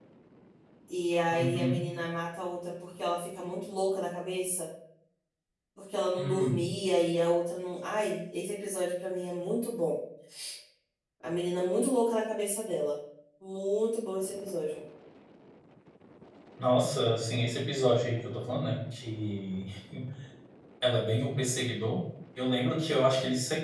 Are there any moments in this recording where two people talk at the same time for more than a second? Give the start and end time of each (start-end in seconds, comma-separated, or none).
none